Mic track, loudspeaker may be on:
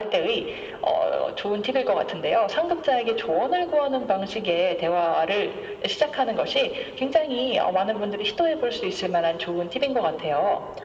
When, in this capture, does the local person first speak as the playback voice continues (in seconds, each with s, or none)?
none